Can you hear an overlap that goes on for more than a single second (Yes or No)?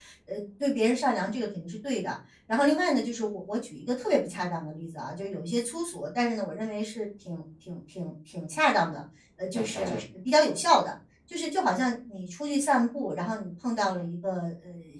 No